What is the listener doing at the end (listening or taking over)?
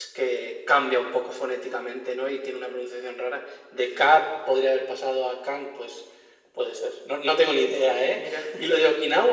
listening